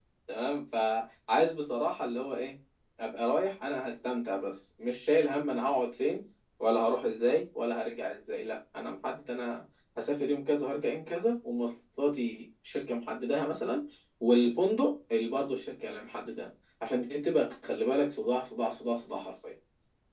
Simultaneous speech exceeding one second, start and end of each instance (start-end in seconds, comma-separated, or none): none